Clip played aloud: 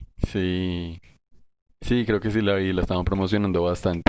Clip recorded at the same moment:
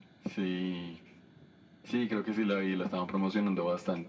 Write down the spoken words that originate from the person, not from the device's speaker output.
none

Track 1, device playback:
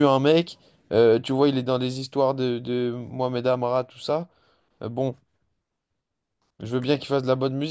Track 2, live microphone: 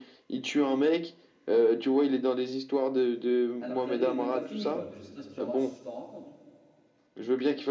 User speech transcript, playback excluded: Alors que l'année n'est même pas finie, quoi. Je sais pas si tu ra- si tu t'en rends compte.

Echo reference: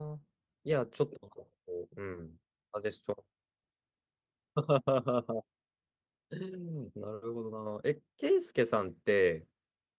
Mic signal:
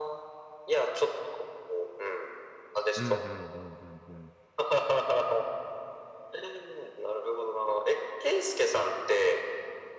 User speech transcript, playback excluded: うん、うん、うん、うん、

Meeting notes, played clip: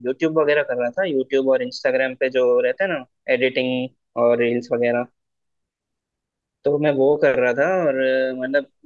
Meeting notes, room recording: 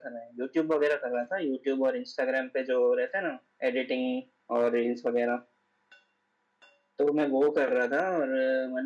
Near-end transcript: none

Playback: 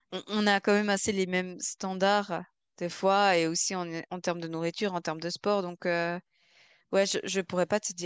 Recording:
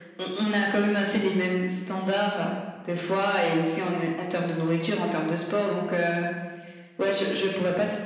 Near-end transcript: none

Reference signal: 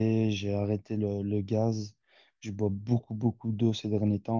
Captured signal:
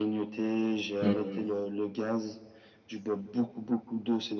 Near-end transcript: Hmm.

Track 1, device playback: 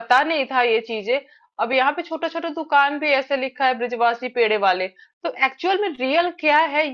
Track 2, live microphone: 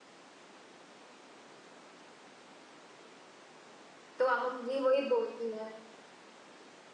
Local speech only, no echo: तो अब मम्मी वही बोलती है

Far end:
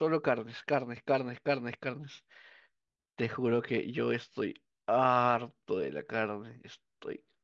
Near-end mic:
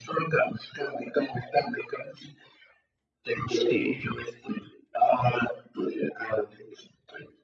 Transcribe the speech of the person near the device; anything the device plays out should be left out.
Sí.

